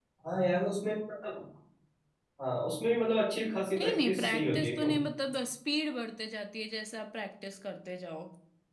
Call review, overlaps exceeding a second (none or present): present